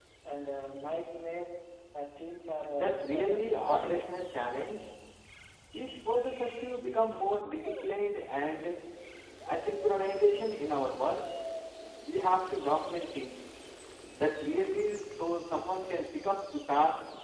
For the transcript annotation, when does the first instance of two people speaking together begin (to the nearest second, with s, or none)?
3 s